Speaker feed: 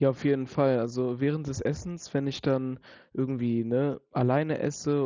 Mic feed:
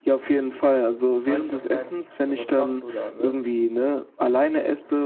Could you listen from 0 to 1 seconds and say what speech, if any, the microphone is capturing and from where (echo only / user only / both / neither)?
echo only